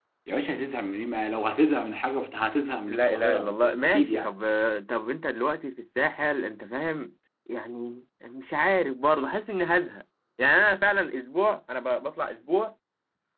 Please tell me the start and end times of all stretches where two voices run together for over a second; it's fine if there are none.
2.9-4.4

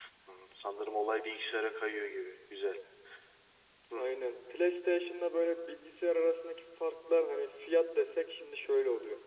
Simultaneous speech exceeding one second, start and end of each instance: none

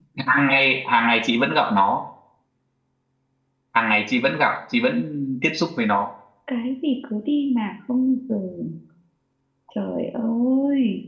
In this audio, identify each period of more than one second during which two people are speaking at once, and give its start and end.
none

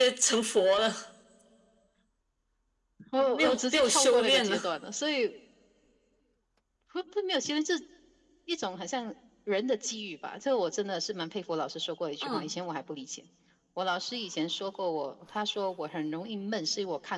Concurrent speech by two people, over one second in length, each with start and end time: 3.4-4.7

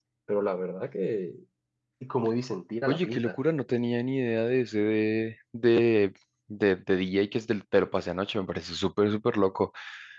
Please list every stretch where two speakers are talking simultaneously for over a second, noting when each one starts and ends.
none

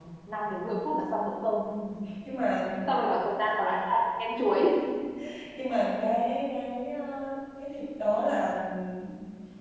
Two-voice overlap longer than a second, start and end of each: none

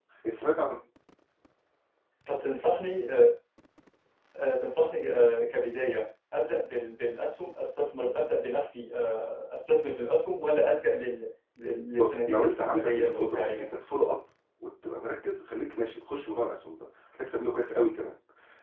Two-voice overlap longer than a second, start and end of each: 12.0-13.6

